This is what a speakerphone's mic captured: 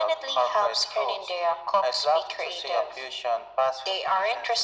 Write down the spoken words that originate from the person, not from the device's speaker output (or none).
none